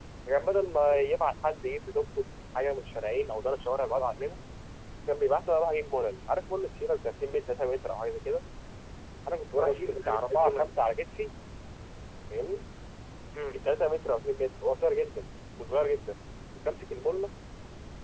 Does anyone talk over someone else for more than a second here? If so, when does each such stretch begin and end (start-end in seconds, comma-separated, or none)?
9.5-10.7